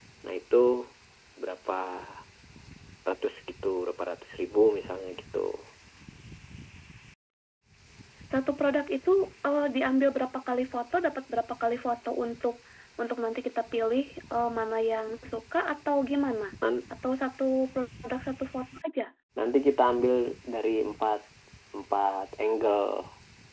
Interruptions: none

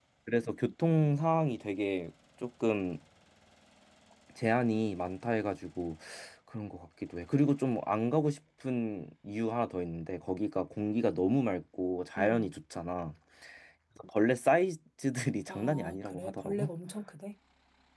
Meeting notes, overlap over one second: present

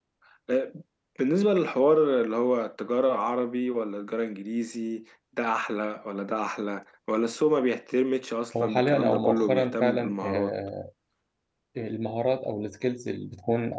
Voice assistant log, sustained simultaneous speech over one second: present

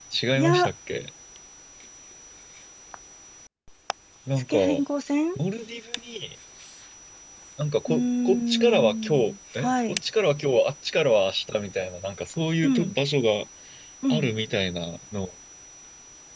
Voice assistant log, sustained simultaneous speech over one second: present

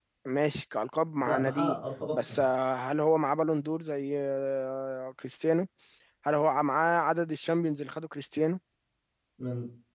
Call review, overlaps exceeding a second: none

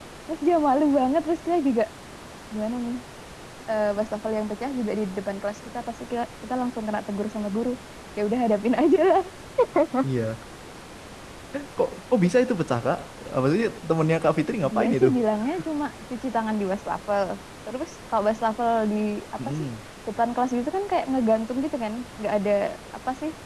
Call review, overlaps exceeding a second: none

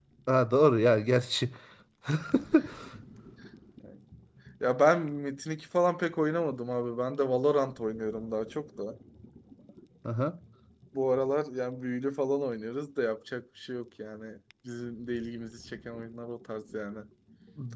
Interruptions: none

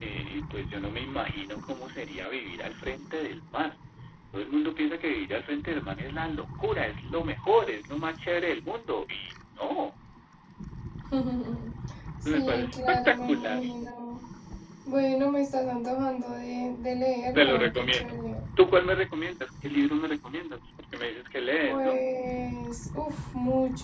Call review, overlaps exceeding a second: present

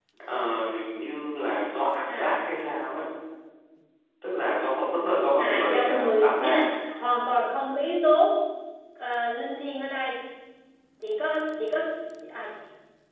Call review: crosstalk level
present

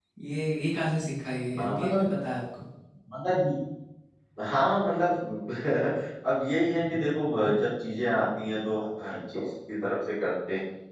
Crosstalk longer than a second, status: none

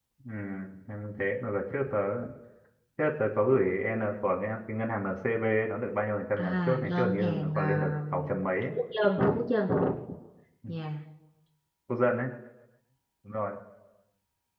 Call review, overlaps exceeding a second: present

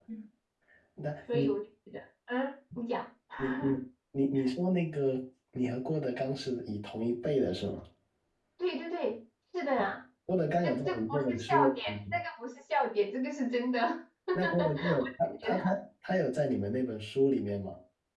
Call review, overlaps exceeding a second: present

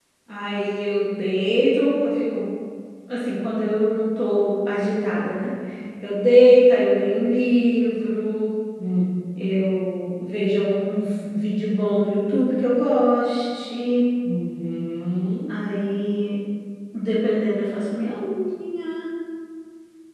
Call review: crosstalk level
none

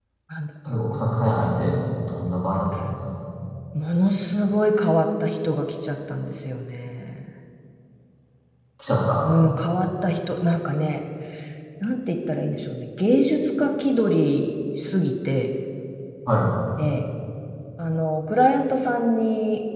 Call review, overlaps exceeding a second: none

